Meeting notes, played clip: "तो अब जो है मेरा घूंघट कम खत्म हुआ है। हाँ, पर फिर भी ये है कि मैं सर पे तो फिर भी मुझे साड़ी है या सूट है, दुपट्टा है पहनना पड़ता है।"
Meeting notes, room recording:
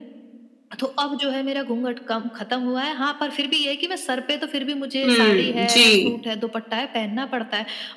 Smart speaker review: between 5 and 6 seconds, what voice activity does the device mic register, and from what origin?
both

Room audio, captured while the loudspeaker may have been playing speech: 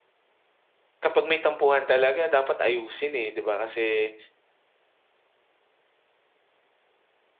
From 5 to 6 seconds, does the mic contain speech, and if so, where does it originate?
neither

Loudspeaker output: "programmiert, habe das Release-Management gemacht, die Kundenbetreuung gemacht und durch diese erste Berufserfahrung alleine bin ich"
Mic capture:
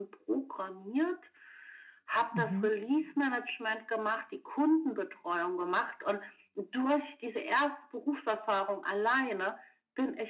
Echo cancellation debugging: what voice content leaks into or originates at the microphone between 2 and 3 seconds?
both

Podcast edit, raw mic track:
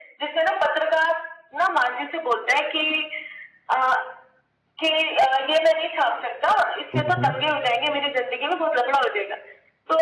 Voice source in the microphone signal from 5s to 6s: echo only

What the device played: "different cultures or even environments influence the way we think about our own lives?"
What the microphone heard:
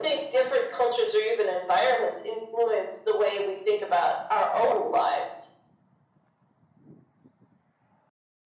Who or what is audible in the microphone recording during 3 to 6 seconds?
echo only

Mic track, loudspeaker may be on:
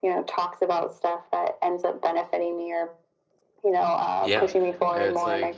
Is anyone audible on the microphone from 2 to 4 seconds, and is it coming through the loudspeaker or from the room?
echo only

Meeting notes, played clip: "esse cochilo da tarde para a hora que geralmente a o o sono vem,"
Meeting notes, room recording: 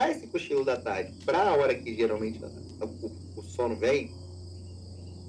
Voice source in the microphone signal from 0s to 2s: echo only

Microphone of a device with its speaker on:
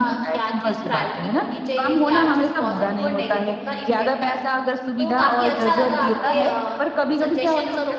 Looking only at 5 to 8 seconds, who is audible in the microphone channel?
both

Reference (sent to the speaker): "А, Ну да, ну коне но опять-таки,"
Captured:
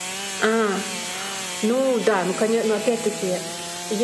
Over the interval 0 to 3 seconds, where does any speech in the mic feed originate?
echo only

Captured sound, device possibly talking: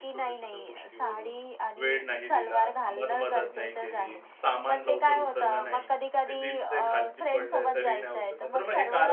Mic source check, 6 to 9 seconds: both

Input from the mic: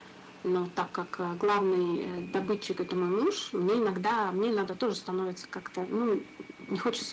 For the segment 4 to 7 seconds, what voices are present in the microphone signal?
echo only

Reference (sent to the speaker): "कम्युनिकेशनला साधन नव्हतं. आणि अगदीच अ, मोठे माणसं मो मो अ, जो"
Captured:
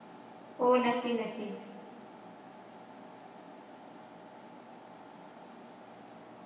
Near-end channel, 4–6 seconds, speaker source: neither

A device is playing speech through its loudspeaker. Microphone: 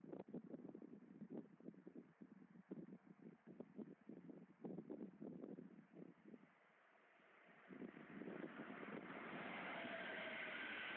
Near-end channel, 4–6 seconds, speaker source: neither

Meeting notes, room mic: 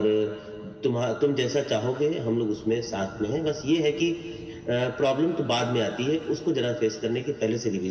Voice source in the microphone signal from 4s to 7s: echo only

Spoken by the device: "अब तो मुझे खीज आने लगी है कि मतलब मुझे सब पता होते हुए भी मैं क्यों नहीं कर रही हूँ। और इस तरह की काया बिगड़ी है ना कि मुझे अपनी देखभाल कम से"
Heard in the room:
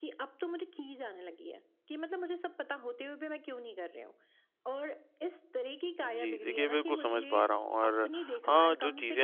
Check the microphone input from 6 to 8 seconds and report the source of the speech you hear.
both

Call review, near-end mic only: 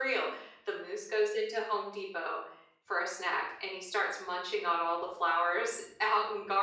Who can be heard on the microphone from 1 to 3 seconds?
echo only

